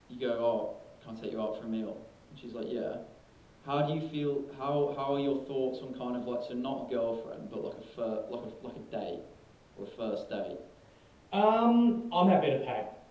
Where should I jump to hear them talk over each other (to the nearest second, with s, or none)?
none